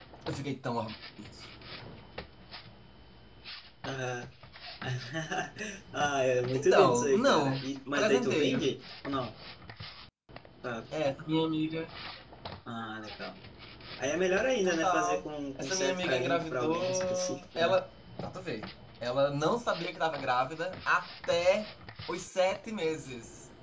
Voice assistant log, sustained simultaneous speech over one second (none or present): present